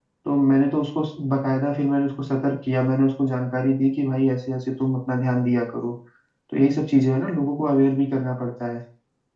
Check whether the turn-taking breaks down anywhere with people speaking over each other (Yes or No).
No